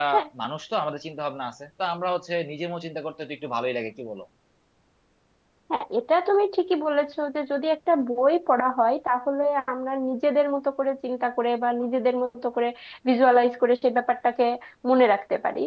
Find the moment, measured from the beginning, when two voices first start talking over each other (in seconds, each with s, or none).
none